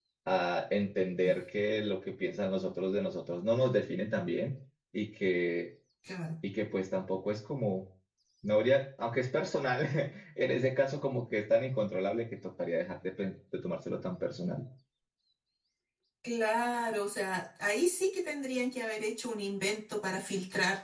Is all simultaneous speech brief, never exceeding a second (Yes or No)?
Yes